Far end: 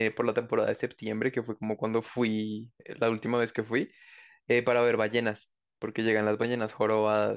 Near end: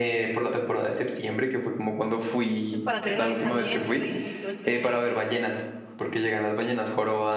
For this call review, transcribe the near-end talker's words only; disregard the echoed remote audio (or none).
pues, para hacer el avistamiento y, y todo el tema del,